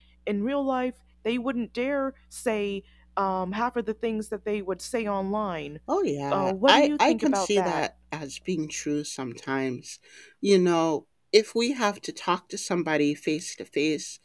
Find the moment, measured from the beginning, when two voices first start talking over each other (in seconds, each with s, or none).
6.3 s